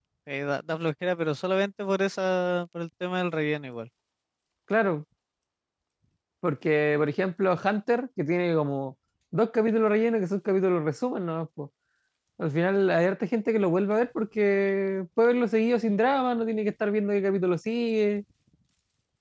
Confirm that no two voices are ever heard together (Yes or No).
Yes